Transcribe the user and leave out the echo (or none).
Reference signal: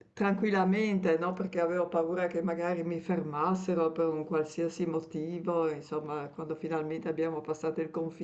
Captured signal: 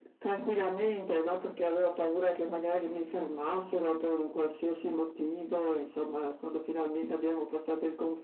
none